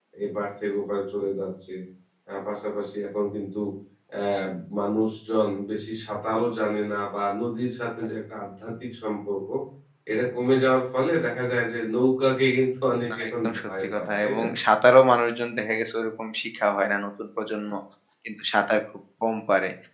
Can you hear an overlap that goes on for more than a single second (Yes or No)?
Yes